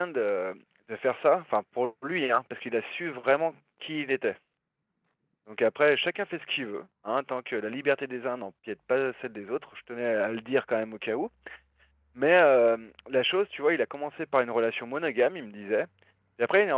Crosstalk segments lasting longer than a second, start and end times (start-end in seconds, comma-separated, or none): none